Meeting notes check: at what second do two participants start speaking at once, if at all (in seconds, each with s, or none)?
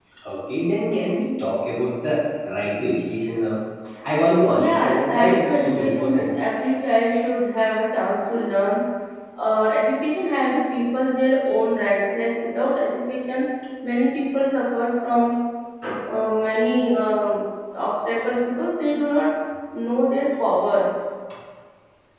4.5 s